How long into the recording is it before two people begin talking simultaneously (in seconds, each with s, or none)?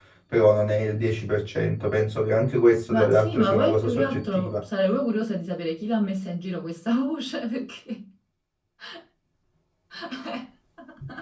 2.9 s